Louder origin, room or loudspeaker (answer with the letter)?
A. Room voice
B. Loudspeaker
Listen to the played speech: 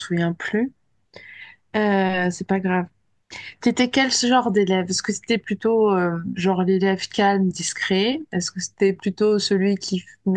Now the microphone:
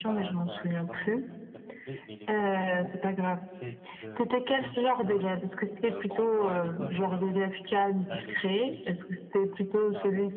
B